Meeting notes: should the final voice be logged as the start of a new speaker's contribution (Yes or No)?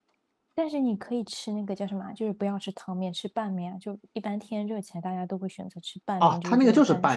Yes